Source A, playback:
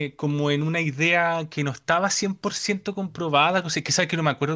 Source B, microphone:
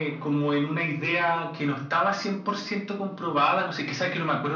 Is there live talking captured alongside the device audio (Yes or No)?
No